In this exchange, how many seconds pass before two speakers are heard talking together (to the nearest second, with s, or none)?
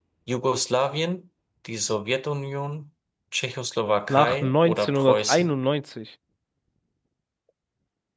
4 s